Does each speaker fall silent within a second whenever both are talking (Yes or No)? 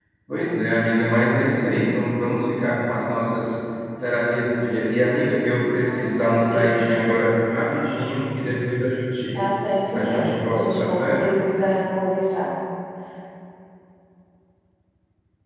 No